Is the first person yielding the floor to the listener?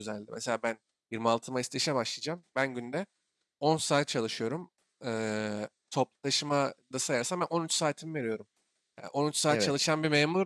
No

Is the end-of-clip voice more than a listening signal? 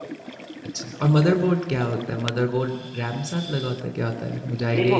Yes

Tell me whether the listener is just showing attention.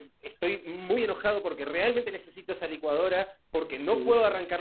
Yes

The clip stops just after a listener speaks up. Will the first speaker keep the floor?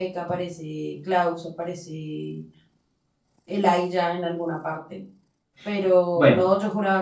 Yes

